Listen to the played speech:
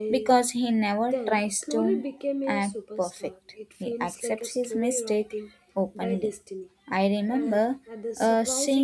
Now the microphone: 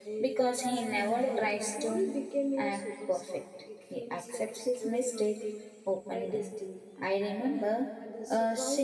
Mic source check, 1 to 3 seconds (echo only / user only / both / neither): both